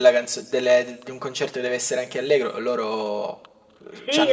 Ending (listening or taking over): taking over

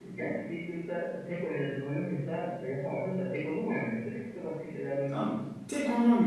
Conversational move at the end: taking over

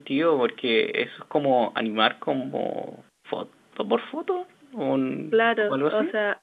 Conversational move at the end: taking over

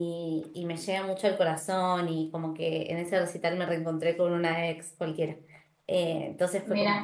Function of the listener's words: listening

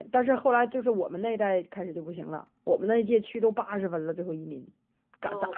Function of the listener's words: taking over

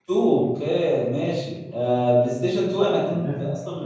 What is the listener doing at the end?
listening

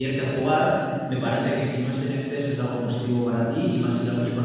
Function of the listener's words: listening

